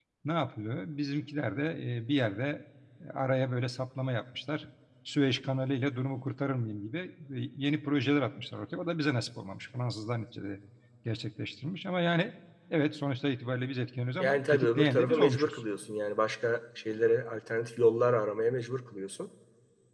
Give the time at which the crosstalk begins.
14.2 s

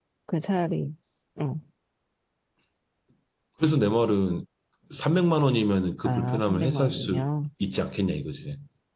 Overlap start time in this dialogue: 6.0 s

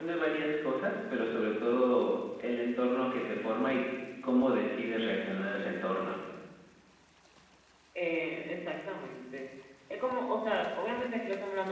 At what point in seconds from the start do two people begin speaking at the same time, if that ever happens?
none

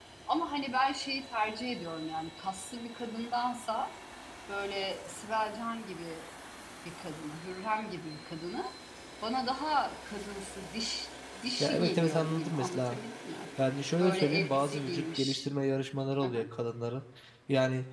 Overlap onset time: 11.6 s

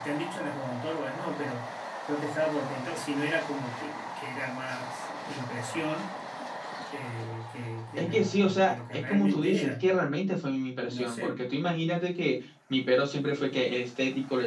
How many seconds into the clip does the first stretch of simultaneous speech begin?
8.0 s

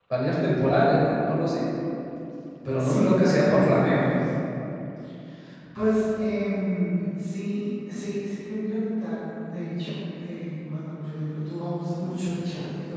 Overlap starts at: 2.8 s

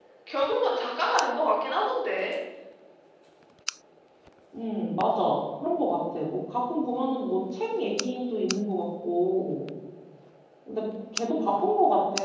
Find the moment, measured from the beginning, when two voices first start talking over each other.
none

